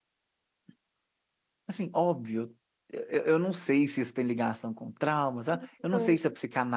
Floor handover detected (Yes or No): No